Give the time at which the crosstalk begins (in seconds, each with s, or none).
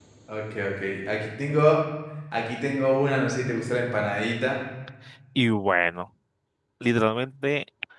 none